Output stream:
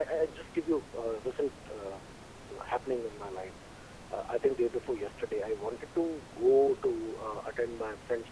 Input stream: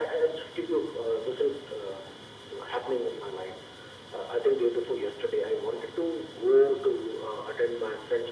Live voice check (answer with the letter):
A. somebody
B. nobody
B